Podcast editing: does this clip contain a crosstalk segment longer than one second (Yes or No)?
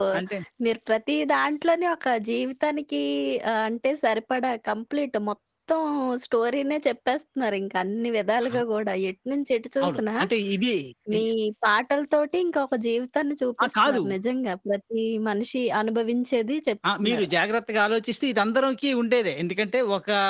No